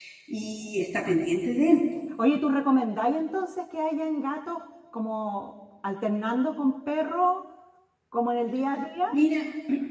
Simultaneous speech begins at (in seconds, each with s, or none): none